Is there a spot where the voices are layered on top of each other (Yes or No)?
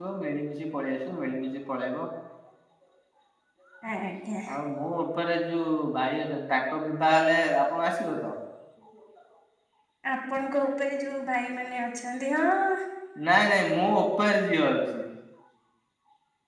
No